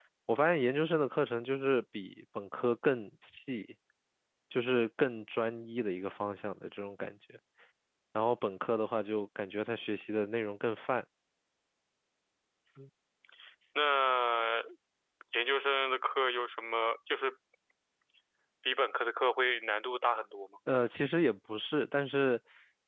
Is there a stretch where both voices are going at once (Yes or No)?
No